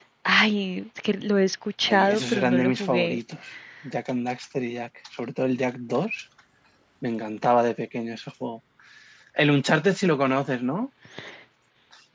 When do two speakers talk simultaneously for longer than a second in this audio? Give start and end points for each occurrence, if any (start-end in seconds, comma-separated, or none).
1.9-3.2